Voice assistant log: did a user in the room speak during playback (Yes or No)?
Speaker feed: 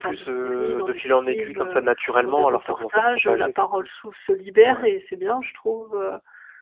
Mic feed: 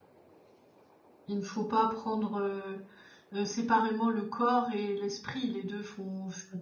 Yes